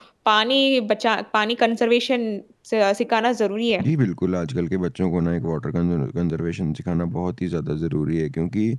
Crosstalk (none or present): none